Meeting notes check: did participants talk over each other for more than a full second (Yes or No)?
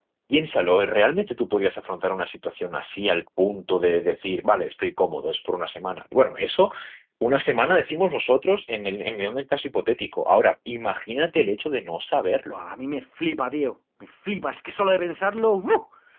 No